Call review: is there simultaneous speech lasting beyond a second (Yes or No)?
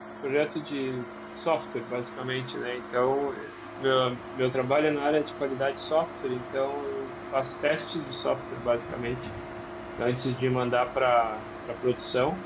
No